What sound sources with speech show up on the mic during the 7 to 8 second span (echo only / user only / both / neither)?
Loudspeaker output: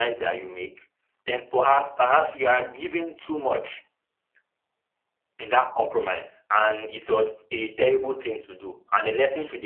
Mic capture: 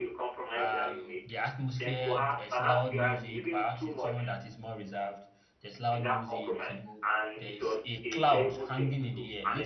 both